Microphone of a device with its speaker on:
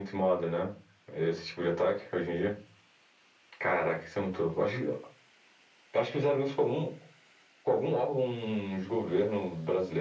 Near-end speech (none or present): none